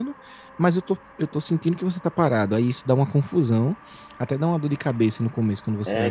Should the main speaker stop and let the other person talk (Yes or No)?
Yes